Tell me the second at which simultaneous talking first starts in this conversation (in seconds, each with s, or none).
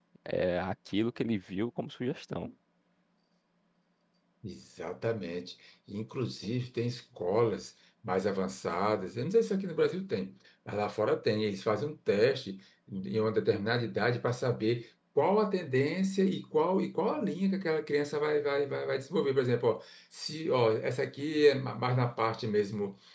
none